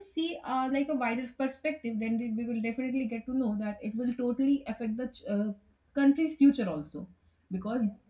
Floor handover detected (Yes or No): No